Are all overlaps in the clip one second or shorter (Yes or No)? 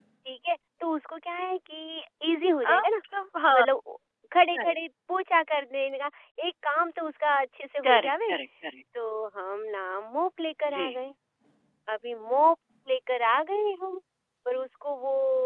Yes